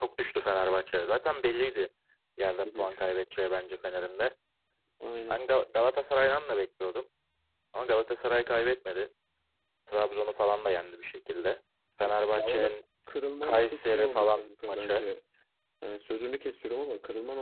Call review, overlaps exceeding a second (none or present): present